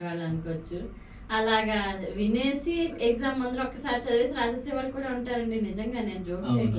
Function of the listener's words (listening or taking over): taking over